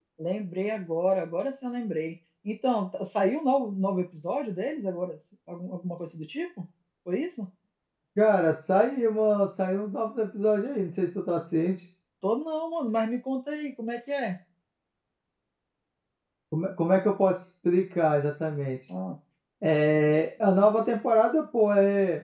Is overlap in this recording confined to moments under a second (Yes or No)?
Yes